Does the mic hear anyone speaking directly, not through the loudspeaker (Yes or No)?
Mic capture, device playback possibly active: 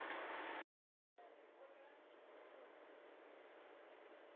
No